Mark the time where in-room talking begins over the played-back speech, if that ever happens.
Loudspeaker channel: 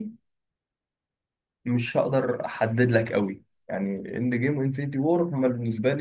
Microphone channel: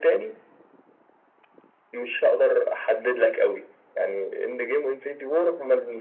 none

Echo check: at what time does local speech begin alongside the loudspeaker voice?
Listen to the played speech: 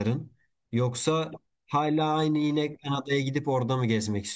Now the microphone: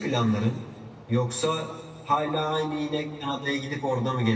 none

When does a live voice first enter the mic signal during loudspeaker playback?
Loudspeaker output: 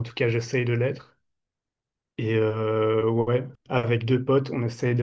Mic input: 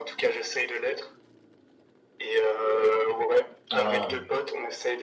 3.7 s

